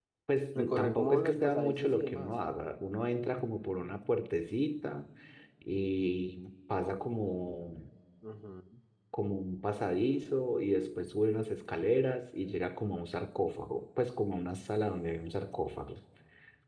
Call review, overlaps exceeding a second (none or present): present